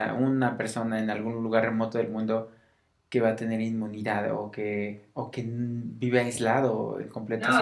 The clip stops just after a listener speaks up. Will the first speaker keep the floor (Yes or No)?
No